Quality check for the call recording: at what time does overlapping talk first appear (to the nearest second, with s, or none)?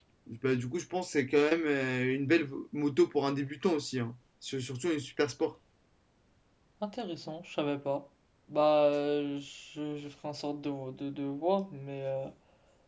none